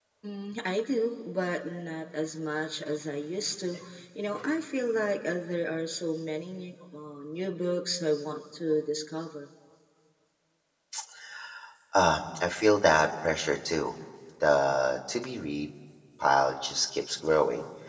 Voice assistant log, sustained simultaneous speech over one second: none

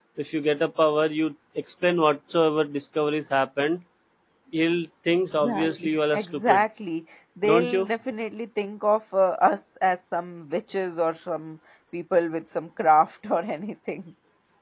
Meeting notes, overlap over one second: present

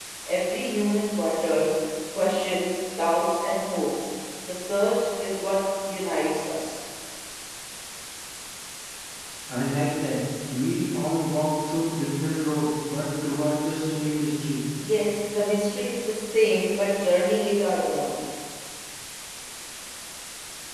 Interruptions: none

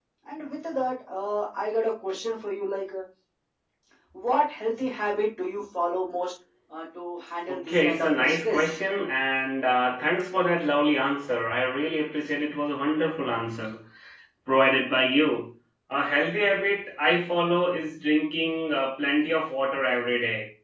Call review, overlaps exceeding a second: present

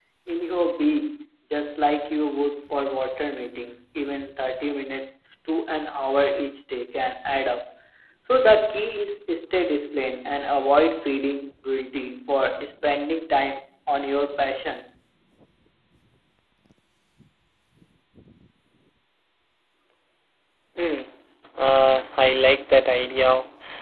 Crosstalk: none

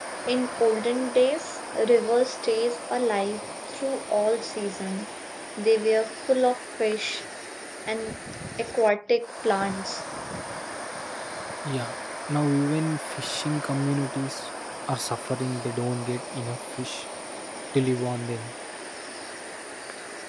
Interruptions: none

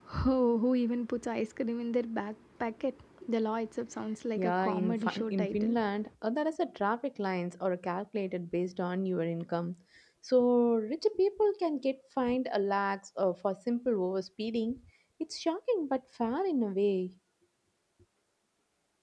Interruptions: present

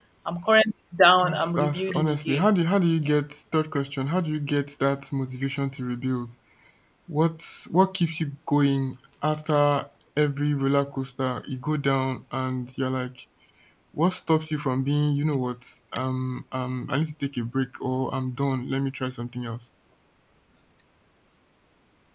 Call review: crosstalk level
present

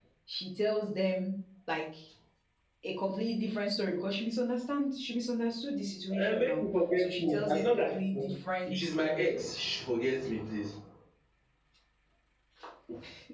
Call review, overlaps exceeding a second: present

